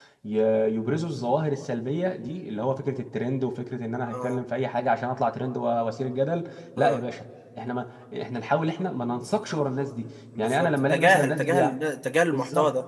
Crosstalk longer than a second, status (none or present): present